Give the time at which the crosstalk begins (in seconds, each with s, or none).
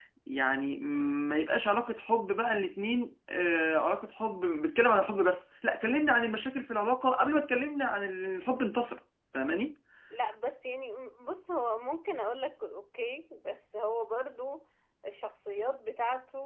none